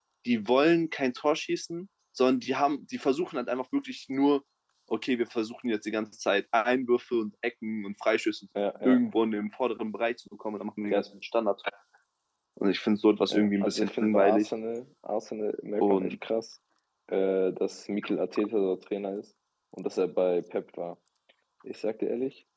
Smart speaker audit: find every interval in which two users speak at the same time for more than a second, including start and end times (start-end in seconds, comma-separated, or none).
13.3-14.5